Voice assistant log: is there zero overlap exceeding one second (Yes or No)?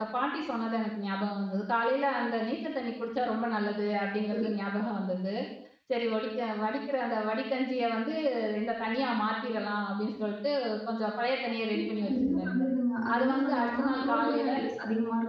No